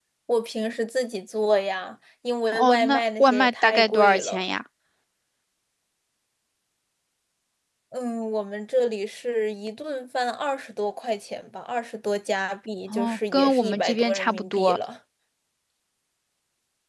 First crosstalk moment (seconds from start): 2.5 s

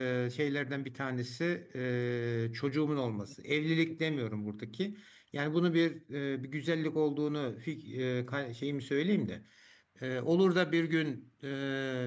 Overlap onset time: none

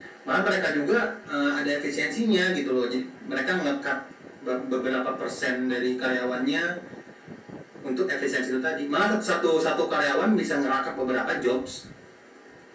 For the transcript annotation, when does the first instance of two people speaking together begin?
none

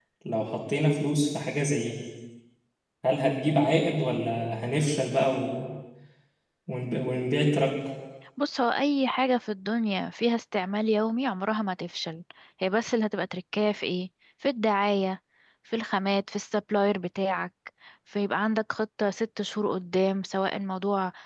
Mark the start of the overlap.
none

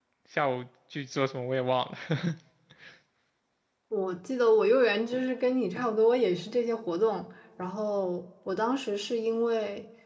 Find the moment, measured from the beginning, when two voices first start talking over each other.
none

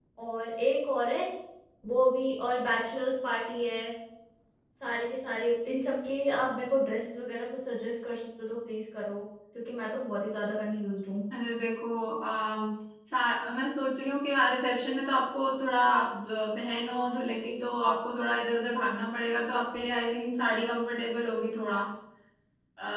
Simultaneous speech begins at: none

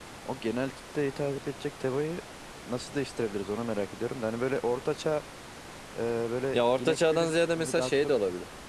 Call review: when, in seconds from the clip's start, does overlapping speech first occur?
6.5 s

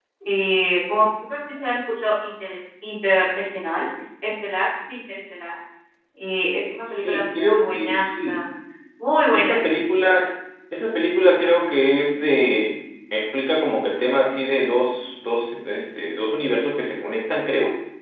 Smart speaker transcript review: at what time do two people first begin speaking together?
6.9 s

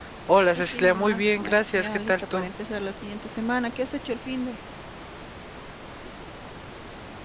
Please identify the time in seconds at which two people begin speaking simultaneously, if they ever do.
0.6 s

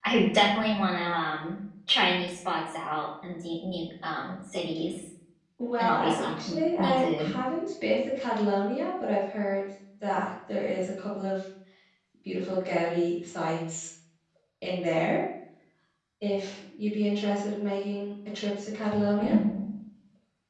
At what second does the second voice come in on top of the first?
5.8 s

